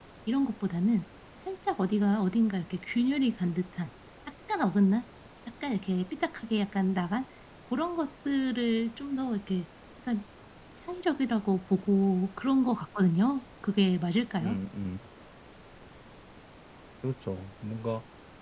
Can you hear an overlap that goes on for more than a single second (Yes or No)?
No